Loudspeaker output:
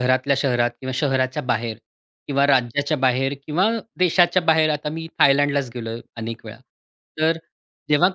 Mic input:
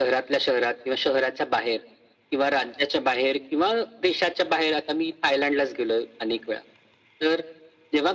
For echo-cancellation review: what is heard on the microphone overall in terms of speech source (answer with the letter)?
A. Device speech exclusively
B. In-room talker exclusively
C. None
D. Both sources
A